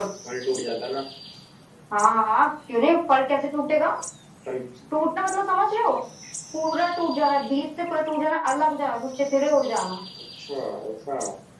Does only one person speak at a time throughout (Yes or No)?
Yes